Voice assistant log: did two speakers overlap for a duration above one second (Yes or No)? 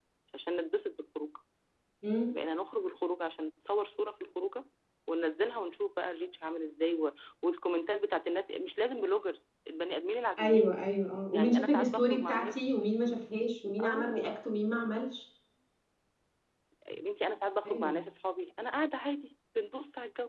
Yes